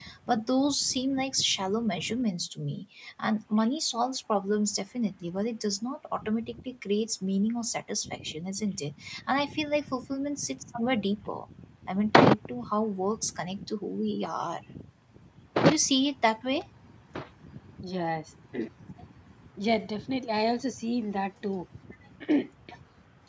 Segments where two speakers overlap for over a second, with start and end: none

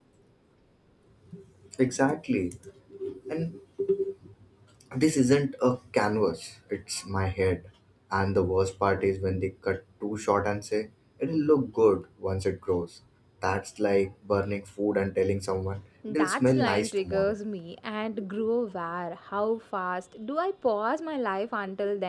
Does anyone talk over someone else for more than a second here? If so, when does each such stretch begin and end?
16.1-17.4

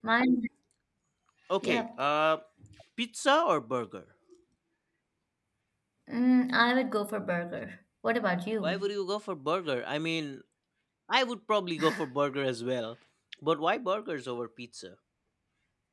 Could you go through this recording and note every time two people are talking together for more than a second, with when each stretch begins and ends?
none

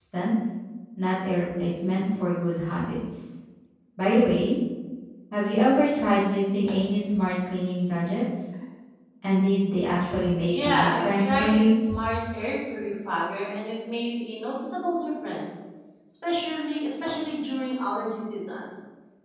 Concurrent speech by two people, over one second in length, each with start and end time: 10.4-11.7

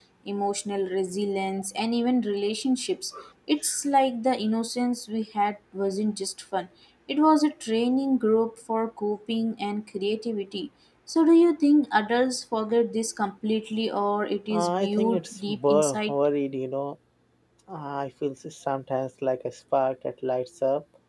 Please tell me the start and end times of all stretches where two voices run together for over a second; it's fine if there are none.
14.5-16.1

